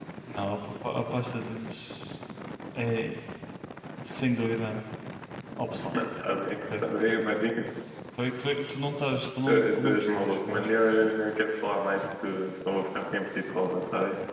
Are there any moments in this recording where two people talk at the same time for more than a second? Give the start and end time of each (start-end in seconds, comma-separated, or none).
9.5-10.7